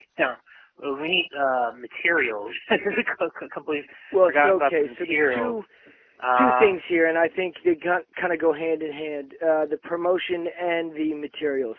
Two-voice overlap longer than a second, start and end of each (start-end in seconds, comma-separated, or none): 4.3-5.6